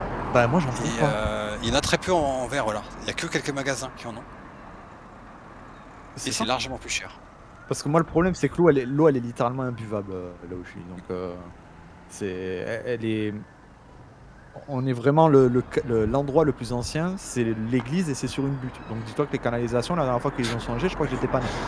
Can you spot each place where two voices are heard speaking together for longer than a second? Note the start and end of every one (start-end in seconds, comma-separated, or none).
none